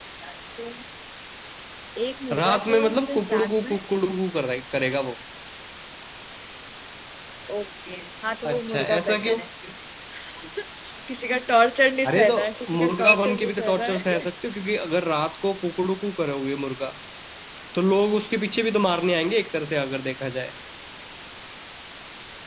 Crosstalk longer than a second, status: present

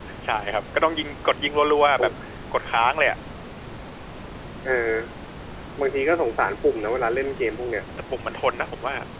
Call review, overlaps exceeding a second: none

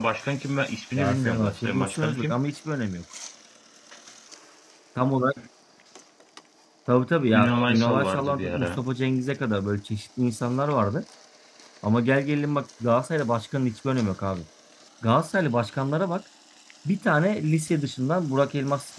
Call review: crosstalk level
present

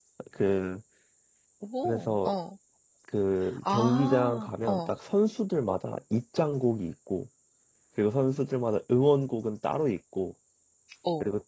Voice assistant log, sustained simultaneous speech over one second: present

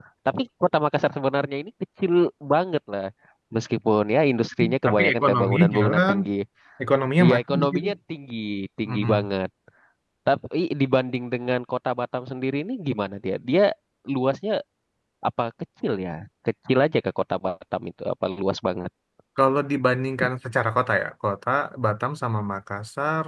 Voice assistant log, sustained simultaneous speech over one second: present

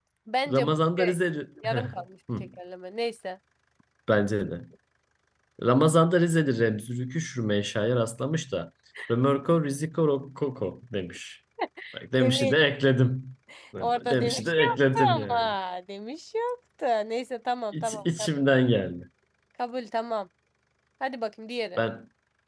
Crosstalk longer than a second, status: present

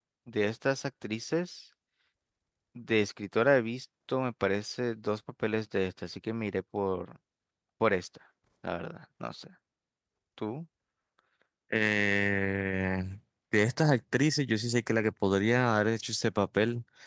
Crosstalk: none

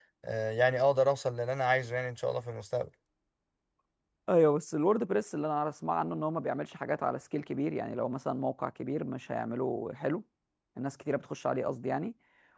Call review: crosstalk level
none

